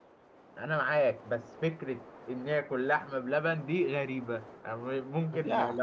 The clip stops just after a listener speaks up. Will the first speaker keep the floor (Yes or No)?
Yes